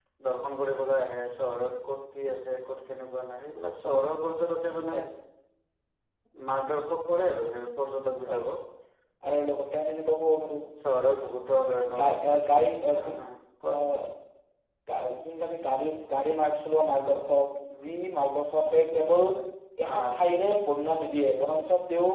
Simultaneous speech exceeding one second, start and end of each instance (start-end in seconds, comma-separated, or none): none